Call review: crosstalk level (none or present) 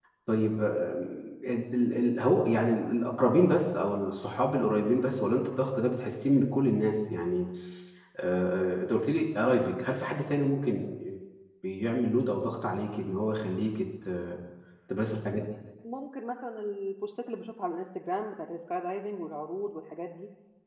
none